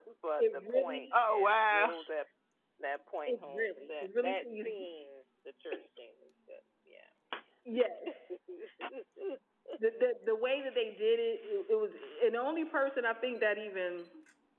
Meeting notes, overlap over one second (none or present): present